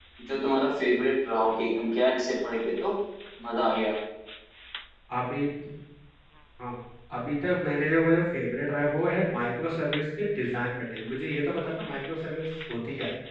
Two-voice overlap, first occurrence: none

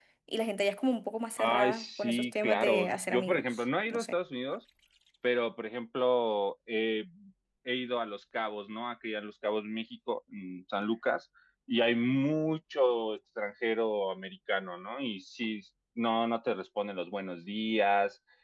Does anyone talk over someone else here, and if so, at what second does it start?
1.4 s

